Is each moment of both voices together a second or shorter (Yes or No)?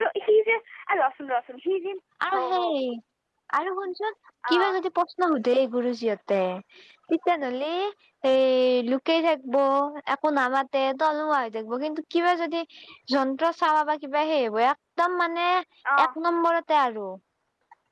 Yes